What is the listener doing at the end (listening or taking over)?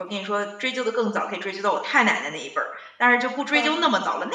listening